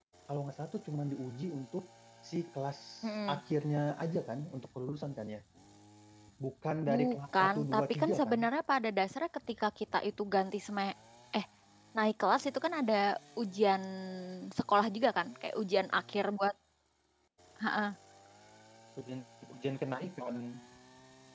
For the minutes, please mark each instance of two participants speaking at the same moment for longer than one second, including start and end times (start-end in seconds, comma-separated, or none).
6.9-8.4